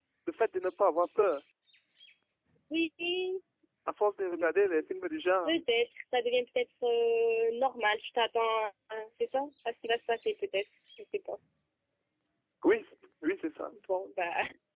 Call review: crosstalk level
none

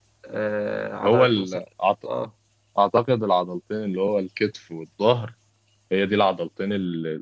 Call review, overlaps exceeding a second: none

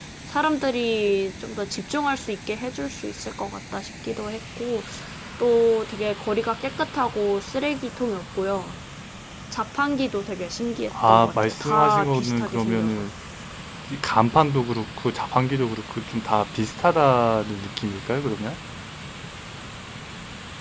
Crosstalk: present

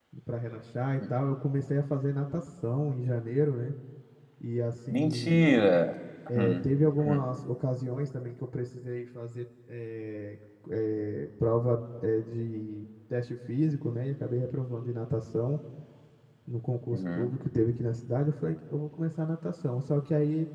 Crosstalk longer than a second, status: none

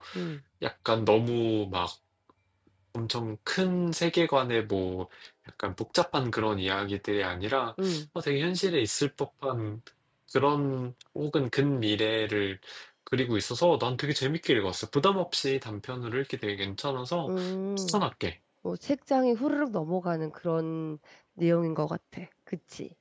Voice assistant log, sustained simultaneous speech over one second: none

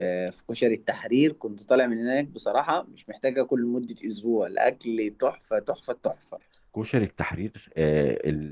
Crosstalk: none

